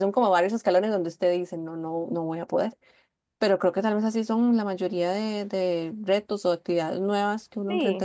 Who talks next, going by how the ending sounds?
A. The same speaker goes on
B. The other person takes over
B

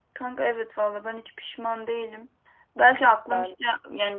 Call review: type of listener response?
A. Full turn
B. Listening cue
B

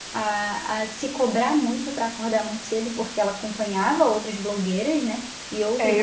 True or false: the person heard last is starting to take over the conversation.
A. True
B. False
A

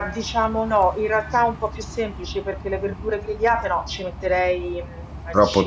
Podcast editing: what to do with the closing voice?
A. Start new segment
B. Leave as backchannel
B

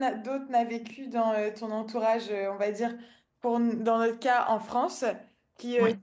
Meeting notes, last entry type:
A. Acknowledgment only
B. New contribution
A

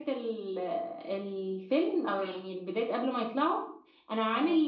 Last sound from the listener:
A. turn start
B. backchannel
B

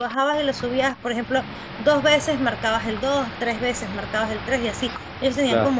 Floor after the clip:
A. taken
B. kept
B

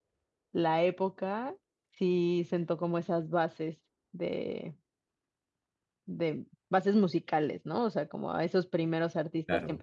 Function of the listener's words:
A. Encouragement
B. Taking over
A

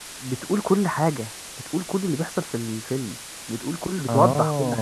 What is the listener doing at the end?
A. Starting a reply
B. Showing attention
A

